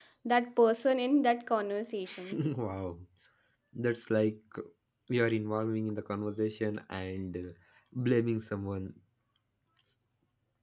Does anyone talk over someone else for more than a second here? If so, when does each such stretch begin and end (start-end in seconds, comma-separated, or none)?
none